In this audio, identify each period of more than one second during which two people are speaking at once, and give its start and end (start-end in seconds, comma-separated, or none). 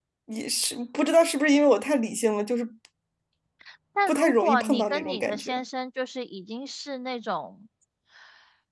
4.1-5.5